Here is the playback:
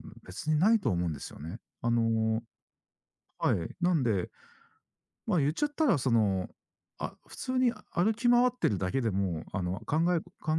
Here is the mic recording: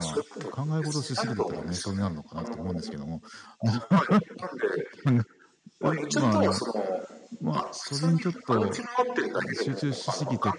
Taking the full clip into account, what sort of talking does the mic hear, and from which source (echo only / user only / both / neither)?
both